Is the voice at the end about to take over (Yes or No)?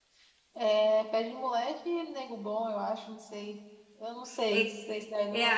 Yes